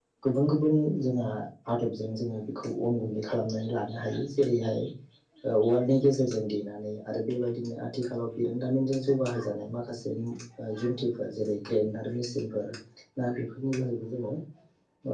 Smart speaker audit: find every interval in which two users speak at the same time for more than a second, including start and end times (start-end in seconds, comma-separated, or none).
none